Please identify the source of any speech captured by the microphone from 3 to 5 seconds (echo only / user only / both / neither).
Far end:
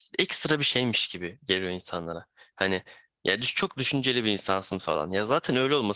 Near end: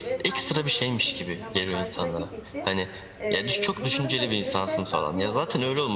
both